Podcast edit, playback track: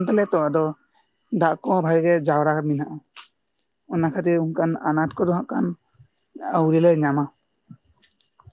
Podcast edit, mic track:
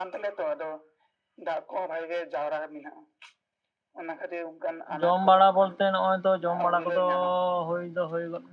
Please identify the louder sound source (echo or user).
user